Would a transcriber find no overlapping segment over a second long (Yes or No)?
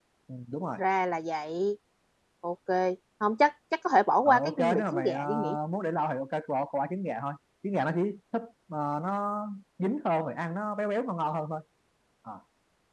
No